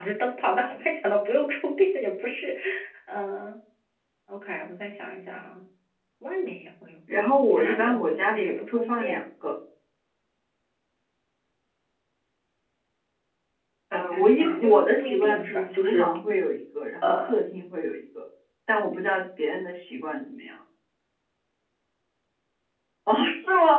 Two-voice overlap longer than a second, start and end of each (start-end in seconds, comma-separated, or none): 7.5-9.2, 14.0-16.1